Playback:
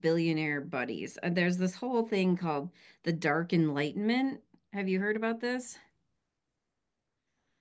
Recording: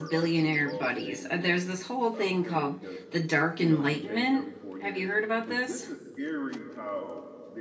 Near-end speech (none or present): present